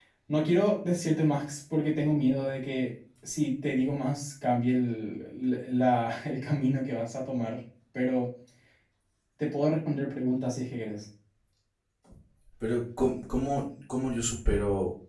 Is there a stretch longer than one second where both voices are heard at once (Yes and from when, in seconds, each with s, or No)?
No